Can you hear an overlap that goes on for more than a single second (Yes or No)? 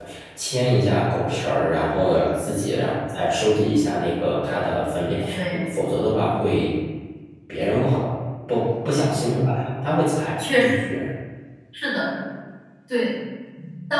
No